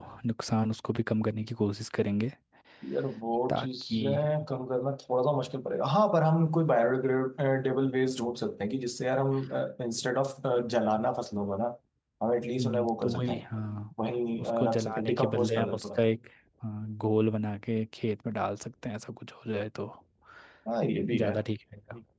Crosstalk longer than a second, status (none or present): present